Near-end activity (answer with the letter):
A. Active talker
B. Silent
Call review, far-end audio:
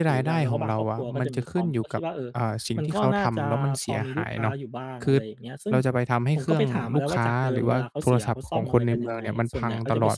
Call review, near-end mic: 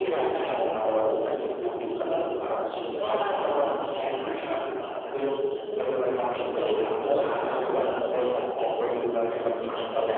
B